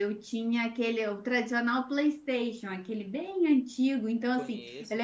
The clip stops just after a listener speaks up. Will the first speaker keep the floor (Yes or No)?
Yes